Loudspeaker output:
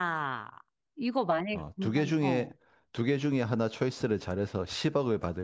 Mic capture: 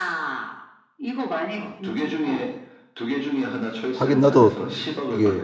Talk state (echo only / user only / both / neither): both